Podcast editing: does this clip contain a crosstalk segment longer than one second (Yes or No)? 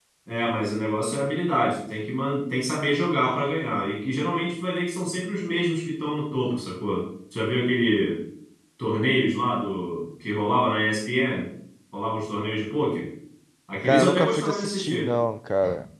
Yes